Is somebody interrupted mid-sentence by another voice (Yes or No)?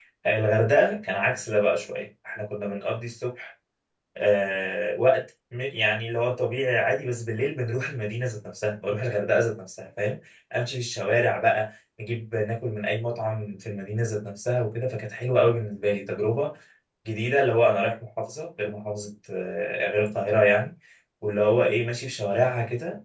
No